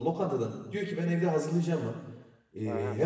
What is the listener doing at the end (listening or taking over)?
listening